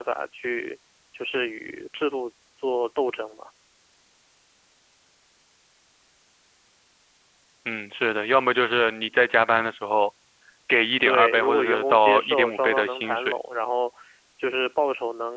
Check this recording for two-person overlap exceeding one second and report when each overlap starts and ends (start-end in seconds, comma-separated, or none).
11.1-13.3